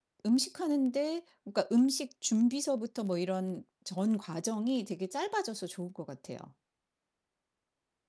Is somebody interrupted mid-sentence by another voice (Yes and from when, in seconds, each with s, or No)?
No